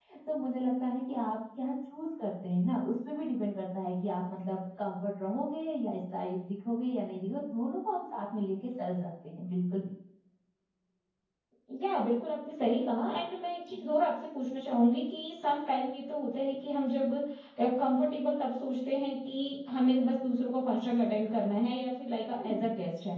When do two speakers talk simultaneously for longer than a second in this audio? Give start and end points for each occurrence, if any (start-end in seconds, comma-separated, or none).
none